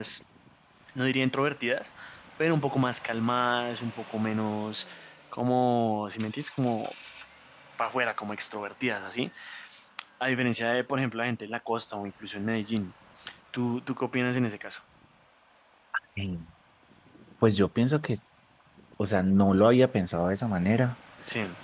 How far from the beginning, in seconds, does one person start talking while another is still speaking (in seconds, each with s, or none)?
none